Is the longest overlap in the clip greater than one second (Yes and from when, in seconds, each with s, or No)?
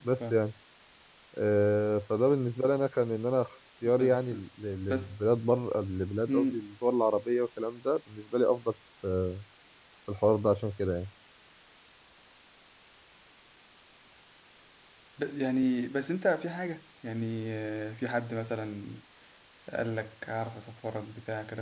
No